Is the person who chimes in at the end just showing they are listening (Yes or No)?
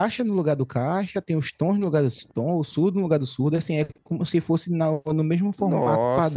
No